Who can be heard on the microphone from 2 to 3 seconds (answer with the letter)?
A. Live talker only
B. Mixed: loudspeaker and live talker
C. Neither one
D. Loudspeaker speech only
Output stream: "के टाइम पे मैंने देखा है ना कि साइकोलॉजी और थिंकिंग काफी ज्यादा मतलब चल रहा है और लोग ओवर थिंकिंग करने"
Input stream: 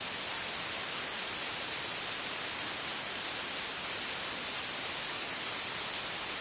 C